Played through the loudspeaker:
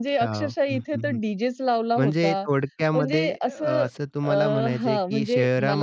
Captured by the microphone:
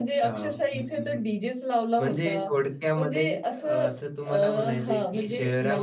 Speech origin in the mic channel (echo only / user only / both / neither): echo only